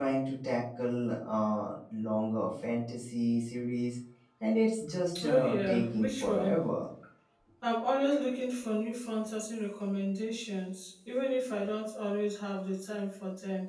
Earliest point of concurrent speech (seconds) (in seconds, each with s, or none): 5.2 s